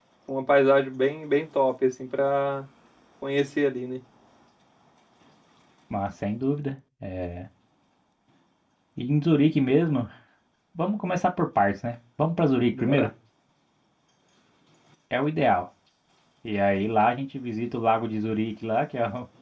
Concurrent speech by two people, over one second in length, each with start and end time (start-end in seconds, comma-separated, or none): none